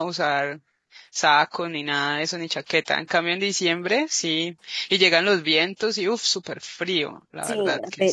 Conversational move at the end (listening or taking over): taking over